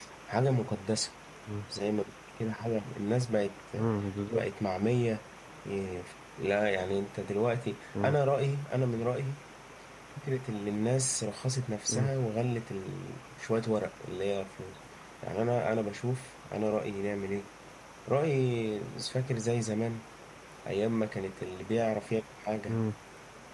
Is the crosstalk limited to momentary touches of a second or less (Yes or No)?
Yes